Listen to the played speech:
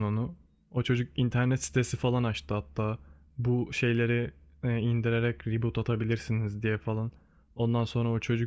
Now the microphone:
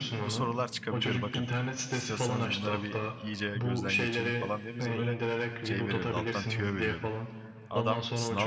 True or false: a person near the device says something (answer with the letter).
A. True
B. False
A